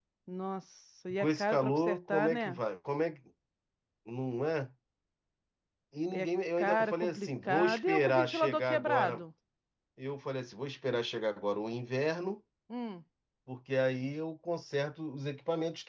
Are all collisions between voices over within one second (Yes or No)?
No